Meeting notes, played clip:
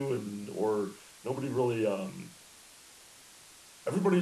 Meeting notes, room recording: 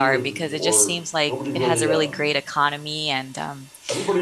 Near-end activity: present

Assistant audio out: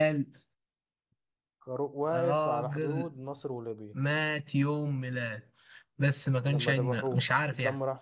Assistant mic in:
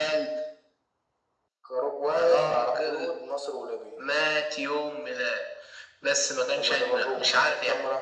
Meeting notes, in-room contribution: none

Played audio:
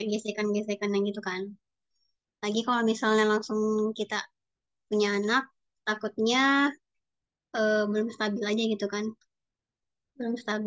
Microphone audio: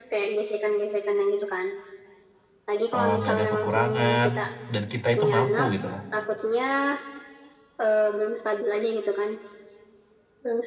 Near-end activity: present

